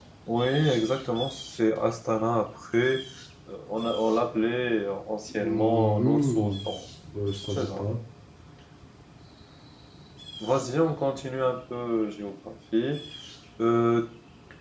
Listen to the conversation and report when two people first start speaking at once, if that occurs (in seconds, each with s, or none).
5.3 s